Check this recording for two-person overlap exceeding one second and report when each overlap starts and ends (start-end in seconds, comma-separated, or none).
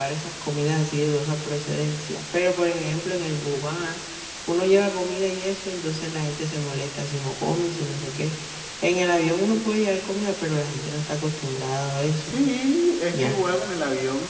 none